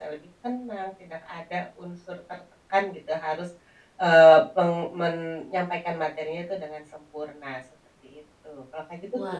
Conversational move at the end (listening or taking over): taking over